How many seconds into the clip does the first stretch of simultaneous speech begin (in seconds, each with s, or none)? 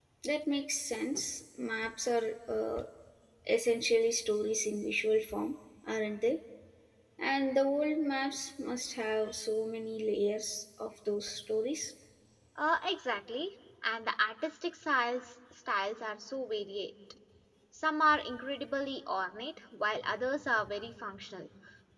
none